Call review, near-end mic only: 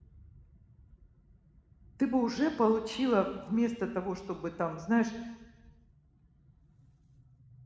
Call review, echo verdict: none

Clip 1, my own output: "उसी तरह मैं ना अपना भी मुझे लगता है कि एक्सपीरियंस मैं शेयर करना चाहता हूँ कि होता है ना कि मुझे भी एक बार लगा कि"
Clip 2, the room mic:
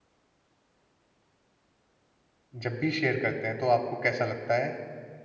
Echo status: none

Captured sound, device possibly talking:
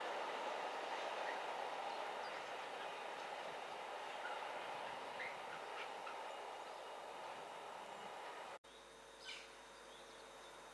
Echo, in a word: none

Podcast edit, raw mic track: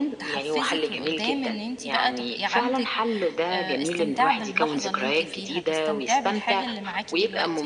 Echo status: present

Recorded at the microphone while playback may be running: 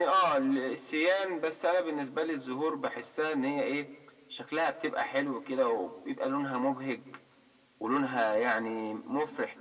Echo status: present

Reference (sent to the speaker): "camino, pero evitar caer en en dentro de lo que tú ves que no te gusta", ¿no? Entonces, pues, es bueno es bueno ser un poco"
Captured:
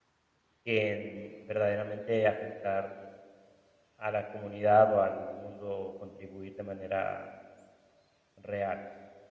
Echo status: none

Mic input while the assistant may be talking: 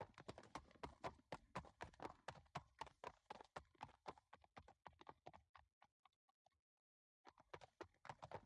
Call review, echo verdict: none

